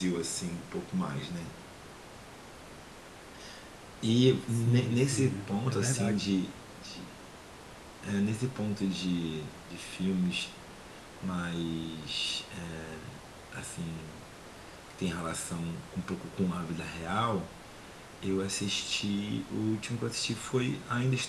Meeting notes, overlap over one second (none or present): present